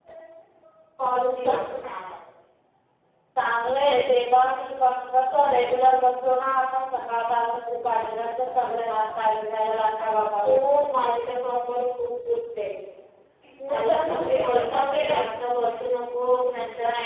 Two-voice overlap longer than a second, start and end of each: 13.7-15.2

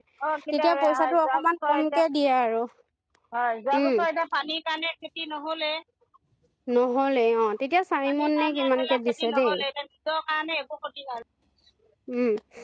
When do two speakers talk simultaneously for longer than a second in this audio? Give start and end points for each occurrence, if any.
0.5-2.0, 8.1-9.6

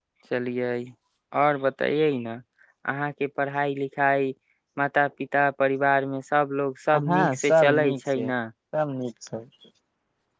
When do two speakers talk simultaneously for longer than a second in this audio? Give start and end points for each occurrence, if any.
7.1-8.3

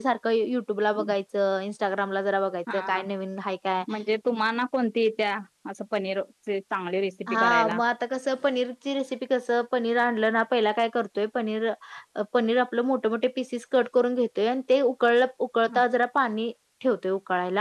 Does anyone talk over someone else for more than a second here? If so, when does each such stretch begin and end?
none

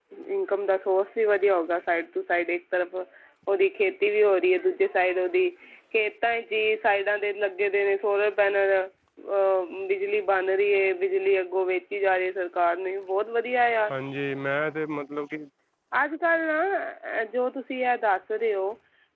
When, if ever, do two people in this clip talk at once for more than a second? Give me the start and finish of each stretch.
none

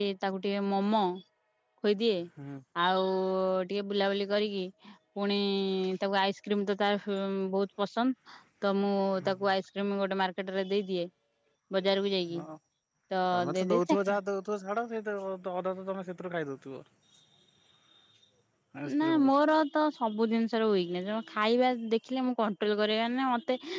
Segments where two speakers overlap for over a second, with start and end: none

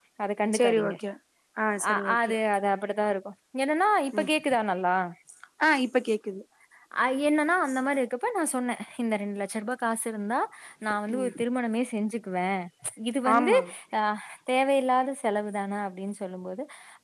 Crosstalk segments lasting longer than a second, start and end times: none

